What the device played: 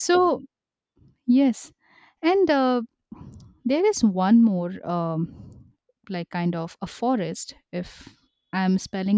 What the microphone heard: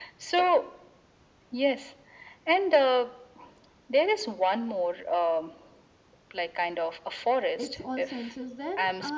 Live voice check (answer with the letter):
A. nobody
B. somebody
B